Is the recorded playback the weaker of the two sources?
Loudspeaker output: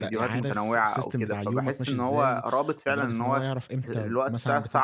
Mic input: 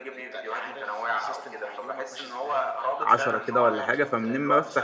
Yes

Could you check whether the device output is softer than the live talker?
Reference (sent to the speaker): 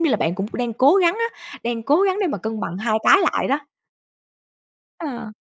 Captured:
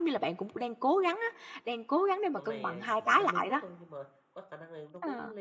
No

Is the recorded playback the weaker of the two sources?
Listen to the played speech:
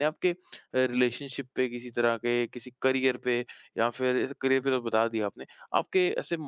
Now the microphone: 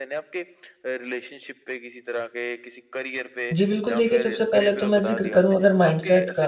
Yes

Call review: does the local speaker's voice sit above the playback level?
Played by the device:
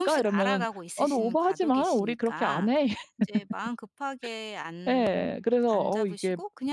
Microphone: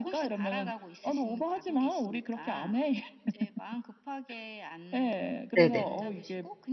Yes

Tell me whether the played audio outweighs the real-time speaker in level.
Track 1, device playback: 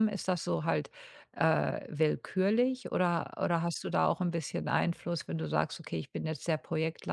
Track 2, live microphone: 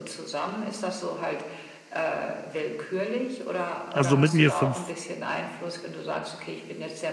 No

